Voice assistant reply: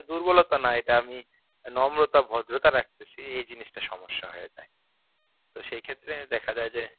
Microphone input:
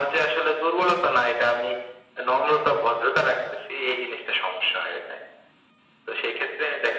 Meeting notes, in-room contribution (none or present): none